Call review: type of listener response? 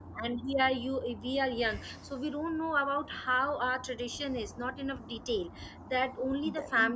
listening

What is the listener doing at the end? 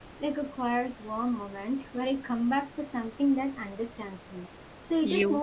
listening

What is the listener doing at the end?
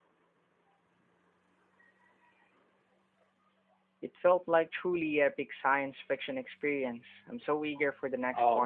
taking over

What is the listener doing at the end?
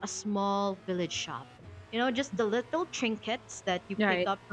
listening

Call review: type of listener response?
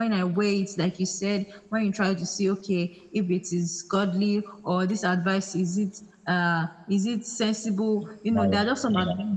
listening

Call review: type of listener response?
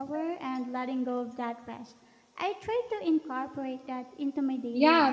taking over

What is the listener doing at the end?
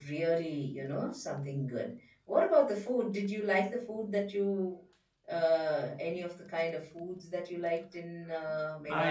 taking over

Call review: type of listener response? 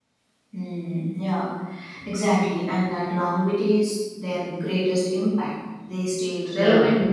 listening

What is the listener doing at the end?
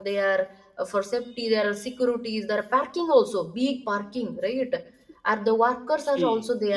taking over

